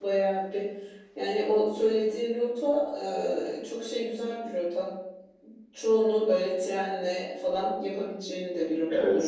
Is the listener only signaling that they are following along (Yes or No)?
No